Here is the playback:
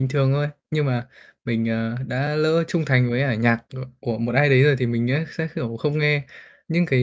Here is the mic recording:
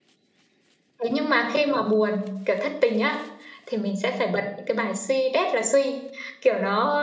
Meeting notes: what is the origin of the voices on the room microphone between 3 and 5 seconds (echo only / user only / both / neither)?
user only